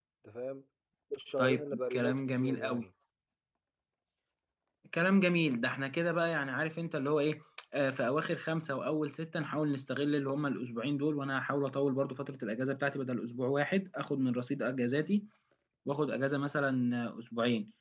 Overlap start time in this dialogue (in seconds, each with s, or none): 1.4 s